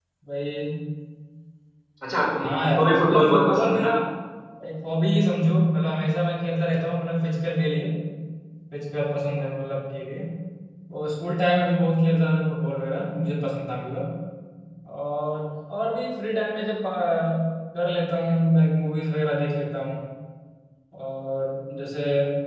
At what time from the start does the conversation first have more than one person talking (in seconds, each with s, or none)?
2.5 s